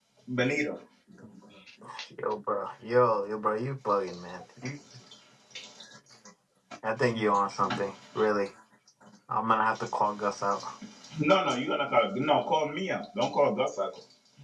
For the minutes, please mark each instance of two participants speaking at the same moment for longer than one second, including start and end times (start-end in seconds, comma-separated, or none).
none